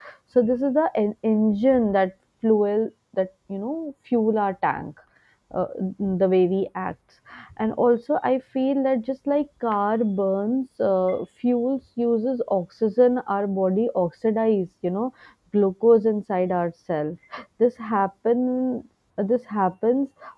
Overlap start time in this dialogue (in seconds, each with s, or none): none